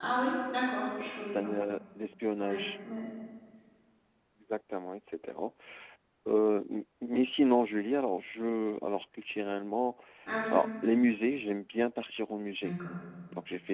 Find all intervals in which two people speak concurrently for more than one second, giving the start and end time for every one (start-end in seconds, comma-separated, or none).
none